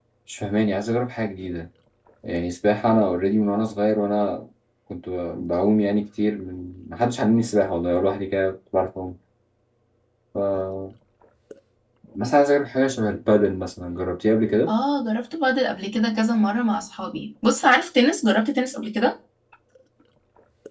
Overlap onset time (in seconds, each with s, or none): none